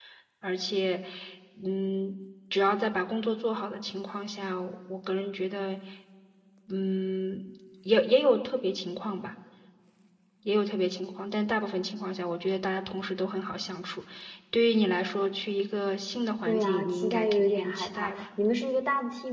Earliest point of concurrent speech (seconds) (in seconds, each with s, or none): 16.4 s